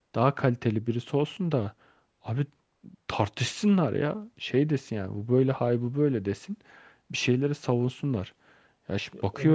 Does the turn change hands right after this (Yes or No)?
No